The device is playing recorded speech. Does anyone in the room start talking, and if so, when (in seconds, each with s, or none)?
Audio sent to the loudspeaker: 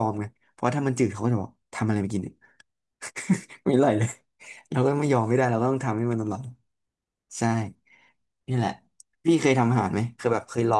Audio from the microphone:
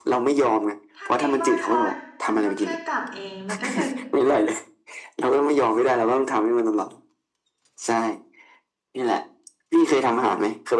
0.9 s